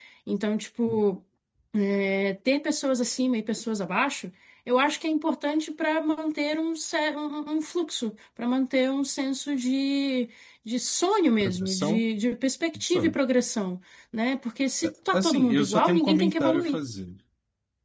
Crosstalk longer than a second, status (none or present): present